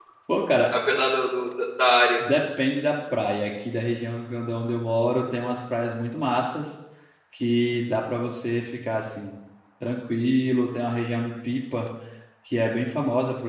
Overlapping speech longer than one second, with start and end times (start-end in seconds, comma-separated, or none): none